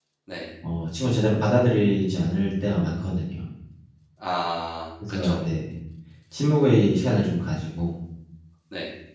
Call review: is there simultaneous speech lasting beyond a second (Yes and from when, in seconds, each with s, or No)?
No